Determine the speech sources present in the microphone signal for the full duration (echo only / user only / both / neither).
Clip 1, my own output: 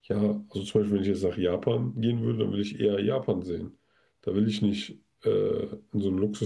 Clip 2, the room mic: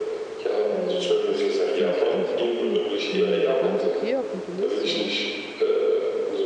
both